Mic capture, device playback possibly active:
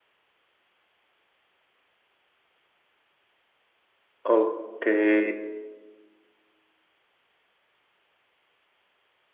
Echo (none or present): none